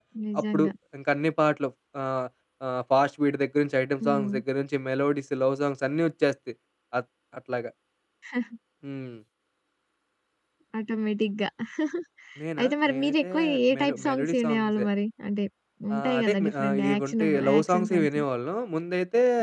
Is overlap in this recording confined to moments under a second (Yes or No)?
No